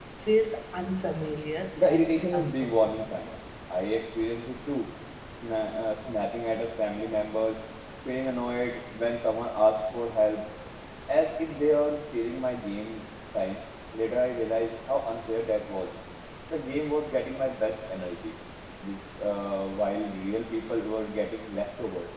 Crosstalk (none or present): present